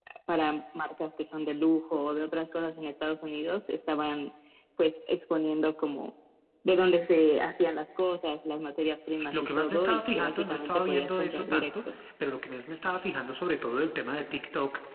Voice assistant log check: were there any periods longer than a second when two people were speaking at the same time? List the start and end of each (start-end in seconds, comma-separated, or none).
9.3-12.0